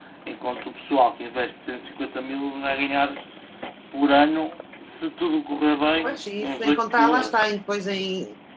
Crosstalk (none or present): present